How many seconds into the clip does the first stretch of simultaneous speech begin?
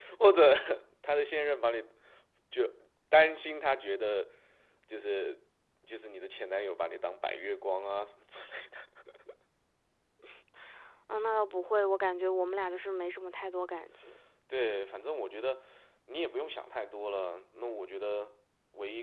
none

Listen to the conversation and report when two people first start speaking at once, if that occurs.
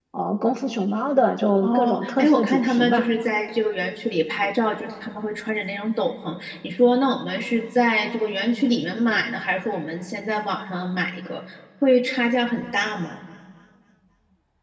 2 s

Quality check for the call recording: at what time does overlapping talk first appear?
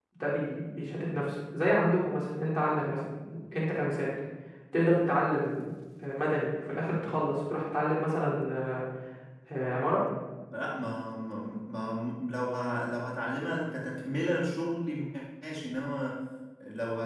none

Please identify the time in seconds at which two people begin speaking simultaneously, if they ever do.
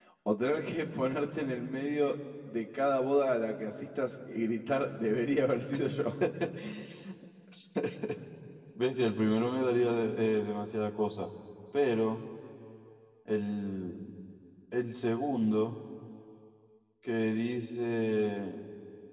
none

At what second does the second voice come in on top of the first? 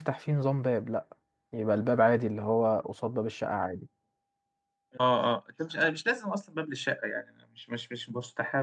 none

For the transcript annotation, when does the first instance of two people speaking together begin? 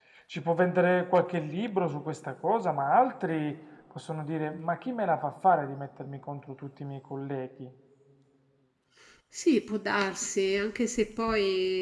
none

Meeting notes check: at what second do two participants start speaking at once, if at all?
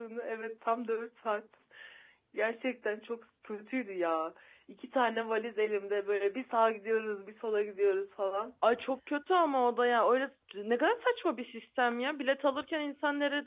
none

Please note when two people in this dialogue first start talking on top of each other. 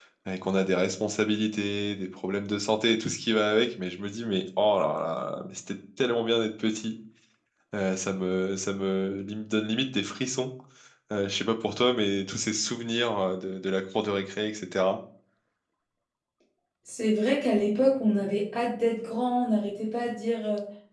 none

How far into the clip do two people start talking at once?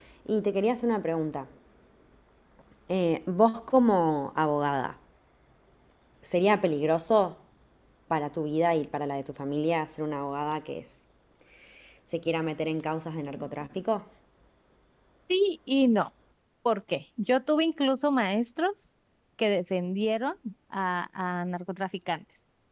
none

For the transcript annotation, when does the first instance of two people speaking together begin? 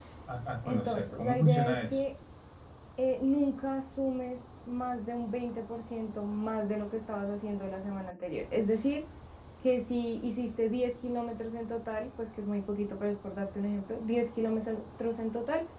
1 s

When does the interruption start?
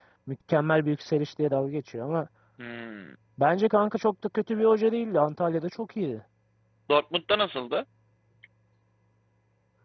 none

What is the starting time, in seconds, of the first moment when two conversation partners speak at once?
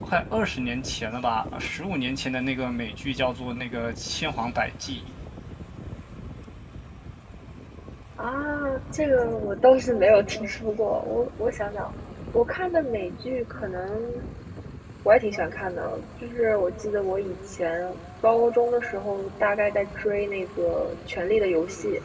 none

